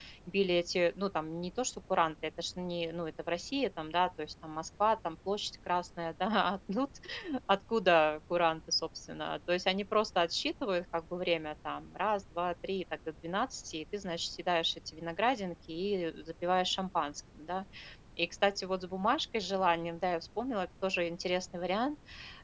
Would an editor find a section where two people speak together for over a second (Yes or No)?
No